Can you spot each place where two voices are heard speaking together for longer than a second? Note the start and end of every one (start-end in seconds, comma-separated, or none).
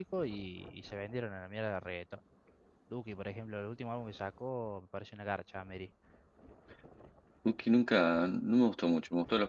none